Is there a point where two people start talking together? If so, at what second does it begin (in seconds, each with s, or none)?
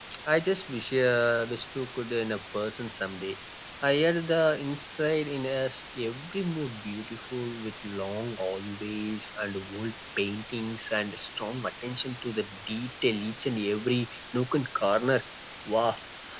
none